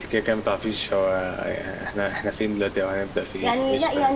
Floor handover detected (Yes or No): Yes